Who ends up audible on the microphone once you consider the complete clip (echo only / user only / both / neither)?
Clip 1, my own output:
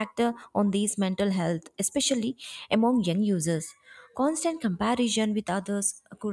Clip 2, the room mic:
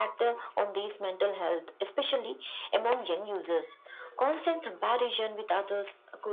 echo only